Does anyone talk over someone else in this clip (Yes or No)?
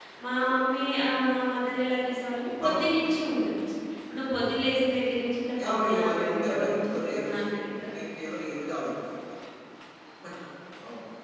Yes